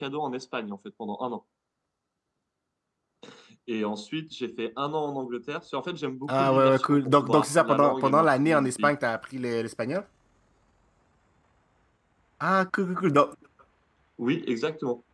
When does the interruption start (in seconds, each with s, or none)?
6.3 s